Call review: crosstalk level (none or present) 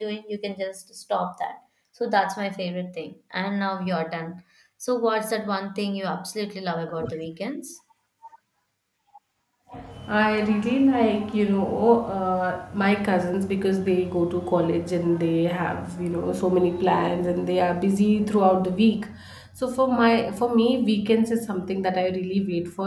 none